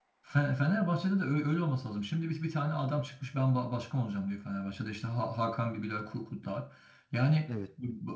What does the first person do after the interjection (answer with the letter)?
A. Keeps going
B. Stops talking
A